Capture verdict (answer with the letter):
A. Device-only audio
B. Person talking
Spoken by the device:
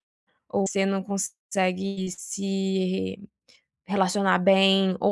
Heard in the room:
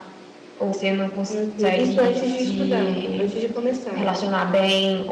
B